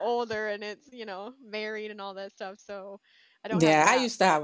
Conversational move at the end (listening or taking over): taking over